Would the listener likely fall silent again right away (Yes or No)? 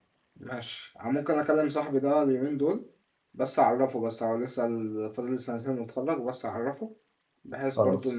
Yes